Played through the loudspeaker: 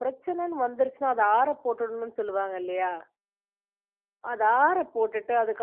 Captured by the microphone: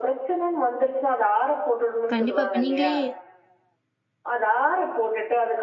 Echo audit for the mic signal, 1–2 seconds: echo only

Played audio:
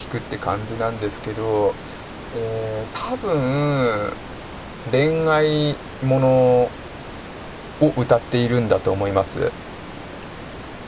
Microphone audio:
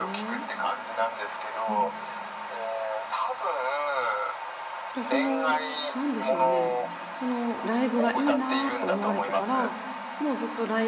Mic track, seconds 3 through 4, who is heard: echo only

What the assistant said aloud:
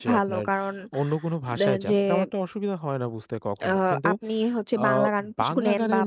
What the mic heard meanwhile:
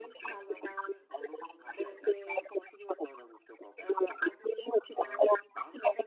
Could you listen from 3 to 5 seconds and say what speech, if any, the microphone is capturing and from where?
echo only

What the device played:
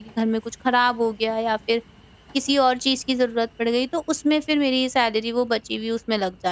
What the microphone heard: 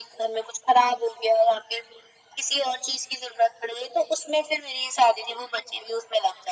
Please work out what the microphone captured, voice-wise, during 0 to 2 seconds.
echo only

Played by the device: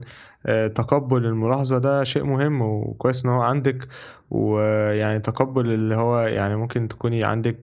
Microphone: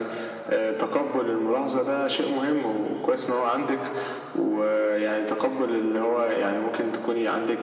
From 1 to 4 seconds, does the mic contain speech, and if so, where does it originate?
echo only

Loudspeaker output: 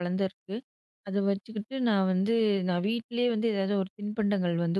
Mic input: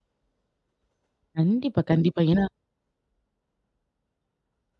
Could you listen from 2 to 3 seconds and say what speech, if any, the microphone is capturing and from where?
user only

